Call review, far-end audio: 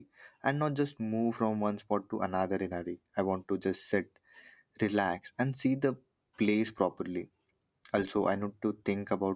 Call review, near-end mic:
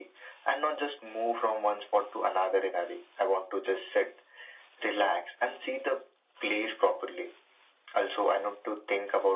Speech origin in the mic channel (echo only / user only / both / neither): echo only